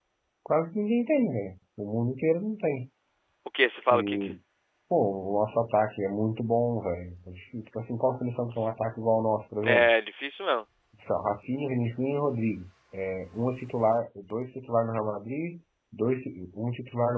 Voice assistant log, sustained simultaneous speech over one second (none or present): none